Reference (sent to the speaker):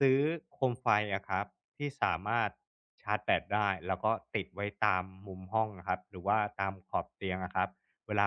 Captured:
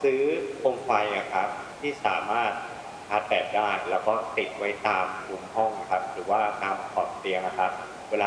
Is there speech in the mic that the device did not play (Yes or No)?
No